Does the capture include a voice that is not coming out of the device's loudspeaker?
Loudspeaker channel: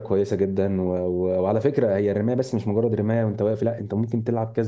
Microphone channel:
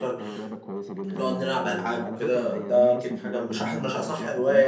Yes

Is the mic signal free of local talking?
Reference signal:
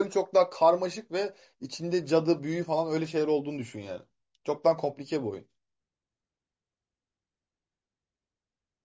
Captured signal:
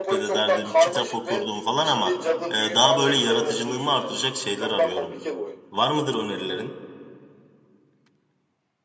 No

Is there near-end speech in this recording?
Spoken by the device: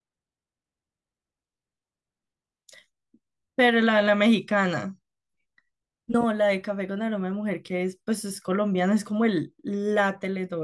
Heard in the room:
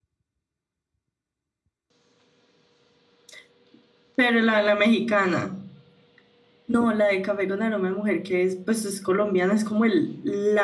No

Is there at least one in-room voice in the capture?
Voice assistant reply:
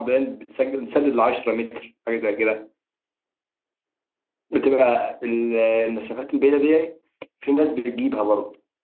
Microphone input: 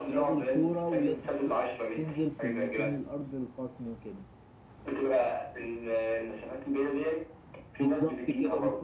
Yes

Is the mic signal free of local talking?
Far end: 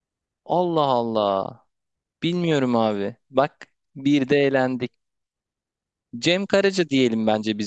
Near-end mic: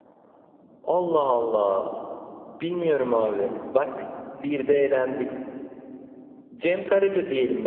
Yes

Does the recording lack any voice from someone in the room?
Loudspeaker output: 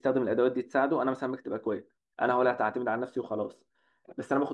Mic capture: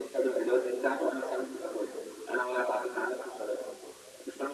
Yes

